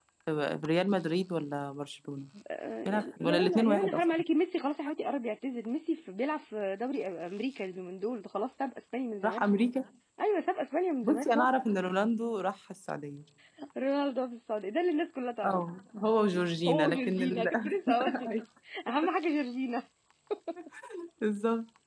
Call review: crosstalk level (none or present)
present